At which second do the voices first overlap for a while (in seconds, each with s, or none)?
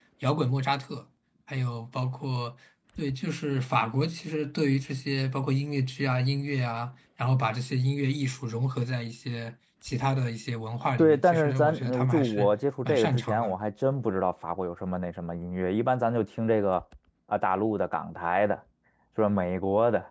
11.0 s